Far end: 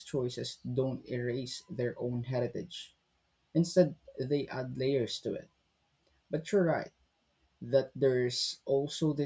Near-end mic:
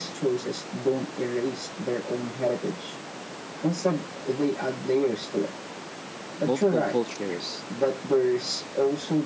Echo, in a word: present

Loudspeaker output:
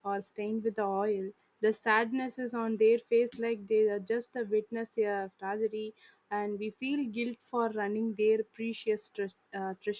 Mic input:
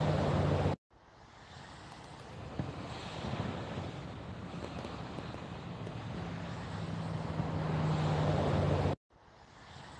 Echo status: none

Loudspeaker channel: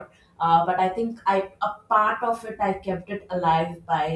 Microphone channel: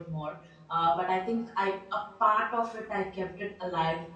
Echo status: present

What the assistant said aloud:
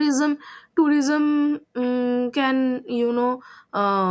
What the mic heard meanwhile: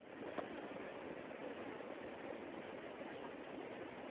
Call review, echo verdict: none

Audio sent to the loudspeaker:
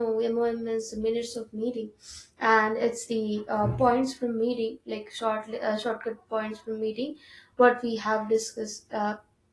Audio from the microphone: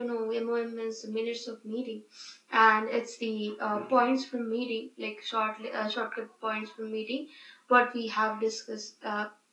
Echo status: present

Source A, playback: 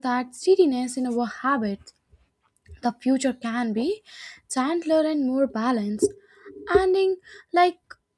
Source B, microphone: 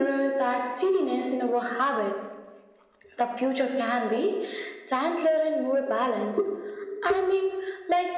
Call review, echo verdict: present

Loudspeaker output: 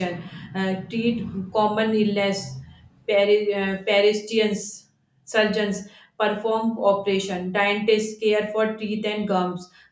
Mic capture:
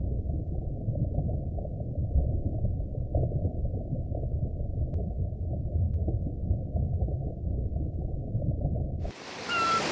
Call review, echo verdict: none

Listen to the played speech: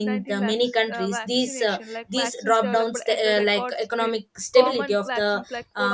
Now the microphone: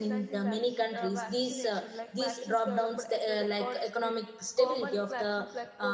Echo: present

